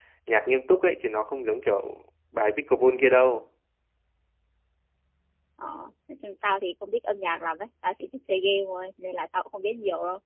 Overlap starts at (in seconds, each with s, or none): none